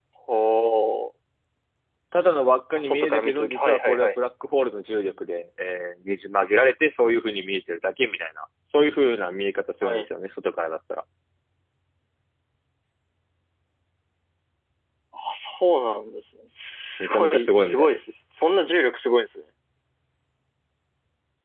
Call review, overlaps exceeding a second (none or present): present